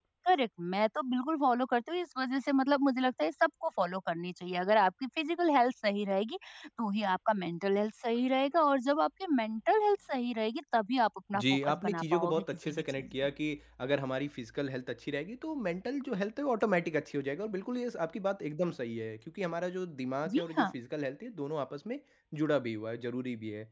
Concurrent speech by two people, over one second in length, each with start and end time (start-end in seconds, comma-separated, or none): 11.4-13.1